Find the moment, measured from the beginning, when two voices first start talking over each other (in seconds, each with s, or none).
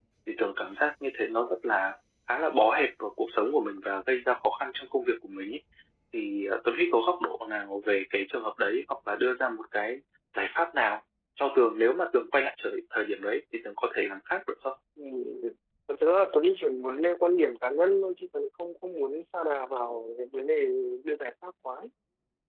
none